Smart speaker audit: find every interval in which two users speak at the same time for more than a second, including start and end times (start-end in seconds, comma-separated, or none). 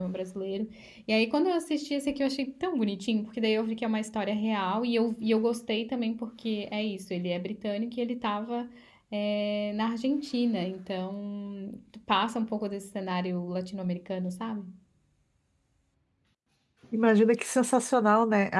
none